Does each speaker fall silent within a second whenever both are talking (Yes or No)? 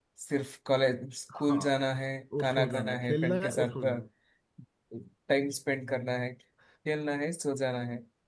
No